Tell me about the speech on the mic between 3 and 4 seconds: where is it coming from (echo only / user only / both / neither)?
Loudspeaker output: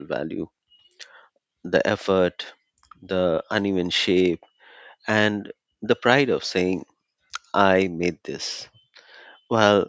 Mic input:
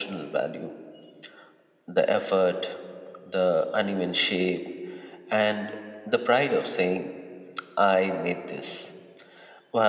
echo only